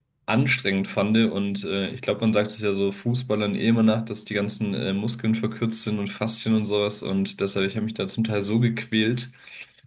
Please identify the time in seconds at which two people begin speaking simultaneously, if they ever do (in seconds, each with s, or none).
none